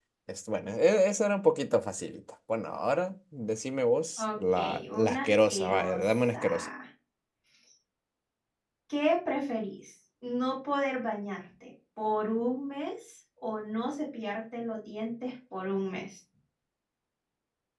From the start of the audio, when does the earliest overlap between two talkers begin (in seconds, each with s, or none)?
4.2 s